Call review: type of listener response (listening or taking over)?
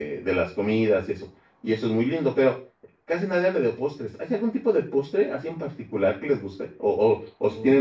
listening